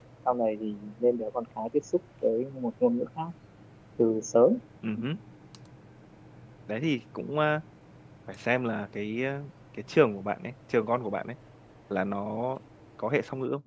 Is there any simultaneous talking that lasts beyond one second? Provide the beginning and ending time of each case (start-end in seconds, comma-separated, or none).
none